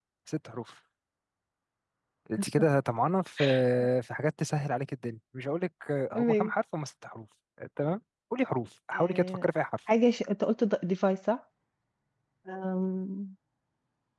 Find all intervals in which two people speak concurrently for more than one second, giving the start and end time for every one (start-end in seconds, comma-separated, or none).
none